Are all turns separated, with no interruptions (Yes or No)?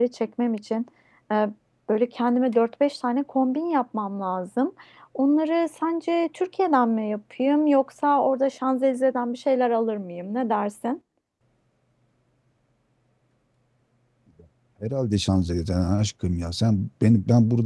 Yes